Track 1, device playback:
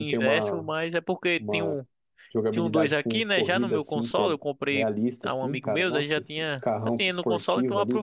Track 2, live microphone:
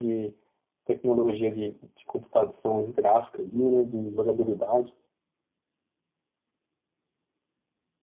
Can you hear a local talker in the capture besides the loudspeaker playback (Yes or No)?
Yes